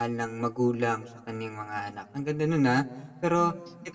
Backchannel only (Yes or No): Yes